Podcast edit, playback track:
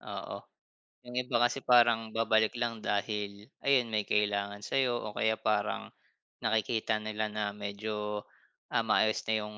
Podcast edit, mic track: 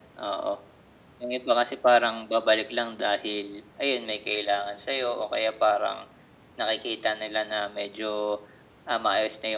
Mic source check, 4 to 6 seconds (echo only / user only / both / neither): echo only